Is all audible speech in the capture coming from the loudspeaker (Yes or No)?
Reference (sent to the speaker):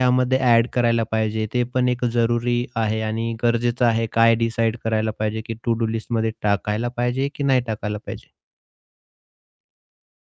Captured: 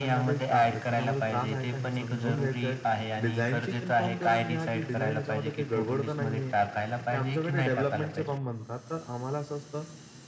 No